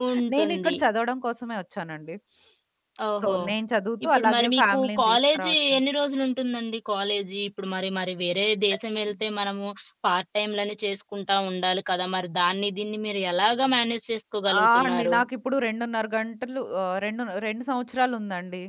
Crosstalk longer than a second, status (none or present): present